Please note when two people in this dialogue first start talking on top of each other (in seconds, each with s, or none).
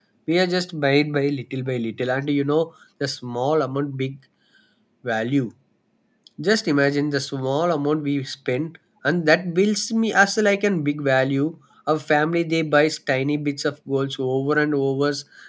none